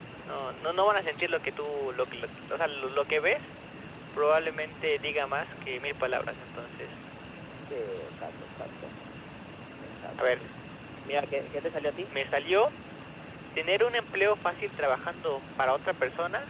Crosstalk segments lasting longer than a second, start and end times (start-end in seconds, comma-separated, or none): none